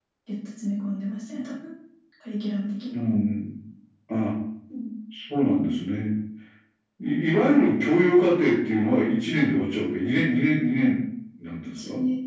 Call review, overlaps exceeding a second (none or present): none